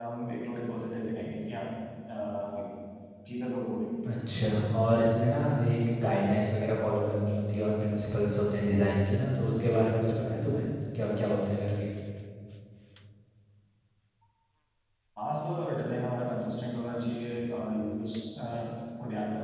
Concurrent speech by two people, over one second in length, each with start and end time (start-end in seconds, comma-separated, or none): none